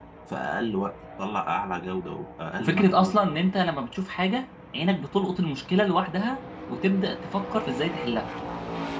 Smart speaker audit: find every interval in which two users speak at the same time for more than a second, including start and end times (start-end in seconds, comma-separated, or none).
none